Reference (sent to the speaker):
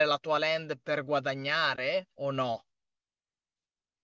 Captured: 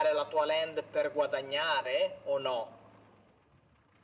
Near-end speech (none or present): none